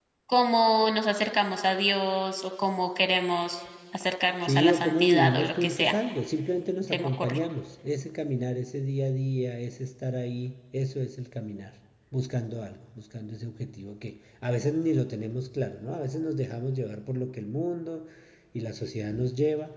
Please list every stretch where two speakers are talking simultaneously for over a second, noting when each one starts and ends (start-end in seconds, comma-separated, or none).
4.4-6.0